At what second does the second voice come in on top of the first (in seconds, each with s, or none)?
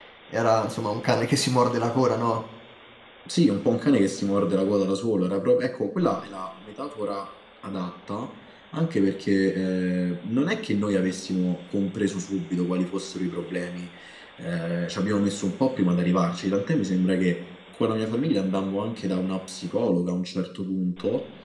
none